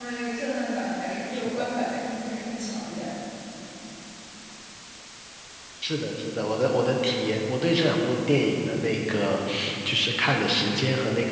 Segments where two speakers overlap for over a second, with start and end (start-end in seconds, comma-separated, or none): none